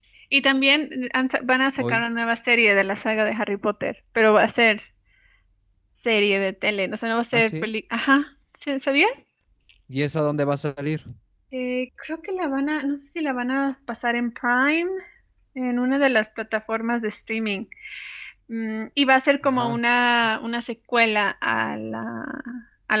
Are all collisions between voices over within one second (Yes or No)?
Yes